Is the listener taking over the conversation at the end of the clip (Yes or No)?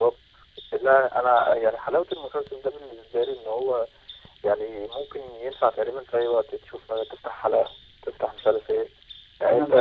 No